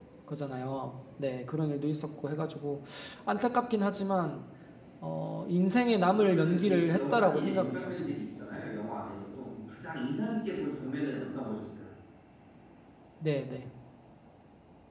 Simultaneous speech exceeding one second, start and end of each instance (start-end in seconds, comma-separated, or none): 6.1-8.2